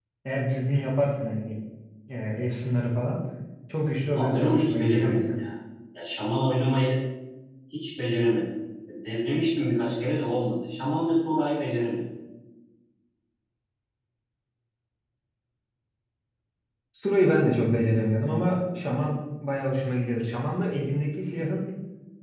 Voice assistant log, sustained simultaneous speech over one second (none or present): present